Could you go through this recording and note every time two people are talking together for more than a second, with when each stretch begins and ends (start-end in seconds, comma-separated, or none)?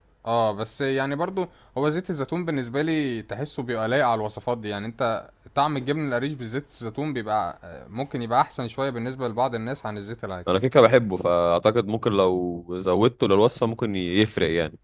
none